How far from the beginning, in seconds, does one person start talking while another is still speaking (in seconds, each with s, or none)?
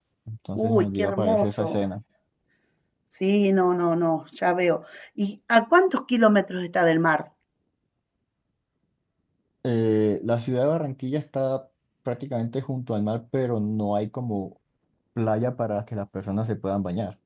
0.6 s